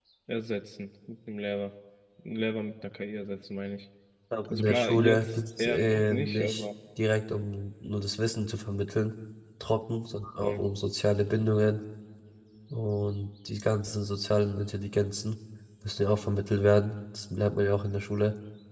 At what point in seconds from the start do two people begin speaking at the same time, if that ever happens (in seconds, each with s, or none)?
4.5 s